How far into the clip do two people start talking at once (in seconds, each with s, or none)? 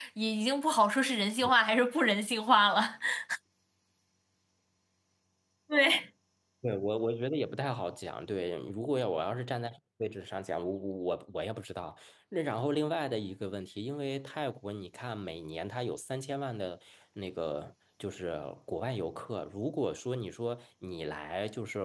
none